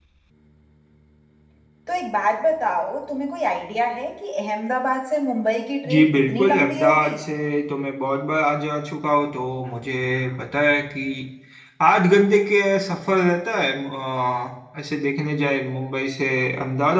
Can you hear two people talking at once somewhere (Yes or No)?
Yes